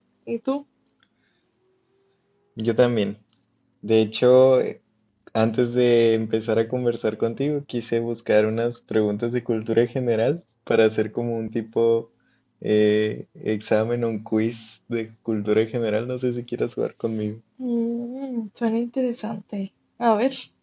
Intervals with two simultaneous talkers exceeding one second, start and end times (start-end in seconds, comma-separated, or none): none